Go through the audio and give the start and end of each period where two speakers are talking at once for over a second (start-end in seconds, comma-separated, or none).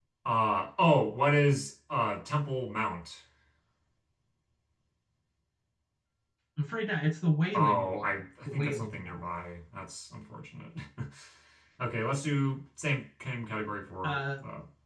7.5-9.2